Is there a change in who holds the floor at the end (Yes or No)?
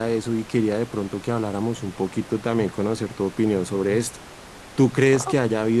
No